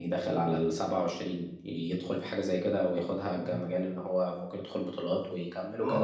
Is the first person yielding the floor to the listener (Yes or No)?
Yes